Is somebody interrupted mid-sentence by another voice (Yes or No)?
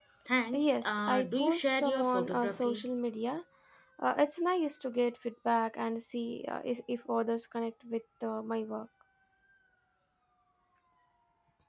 Yes